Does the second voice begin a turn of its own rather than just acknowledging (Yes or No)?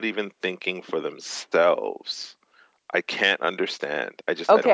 Yes